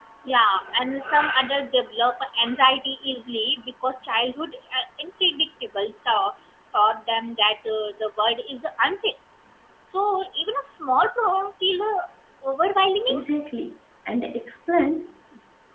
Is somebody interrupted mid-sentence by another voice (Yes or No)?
No